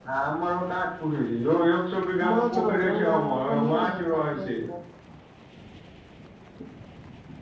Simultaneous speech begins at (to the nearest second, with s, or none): 2 s